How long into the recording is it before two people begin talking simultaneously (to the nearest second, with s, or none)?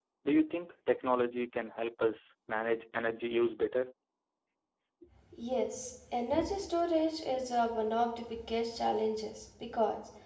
none